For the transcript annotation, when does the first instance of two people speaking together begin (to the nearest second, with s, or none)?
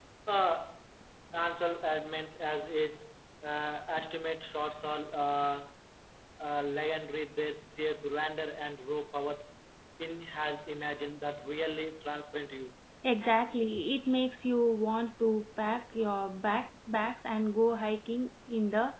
none